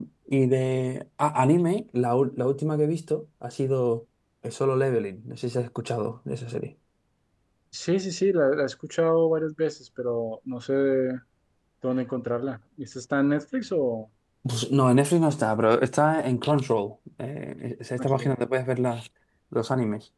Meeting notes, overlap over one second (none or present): none